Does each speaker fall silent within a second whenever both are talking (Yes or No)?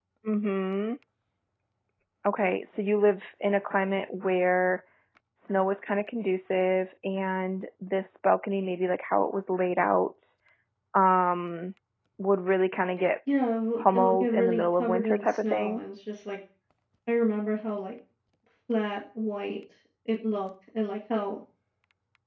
No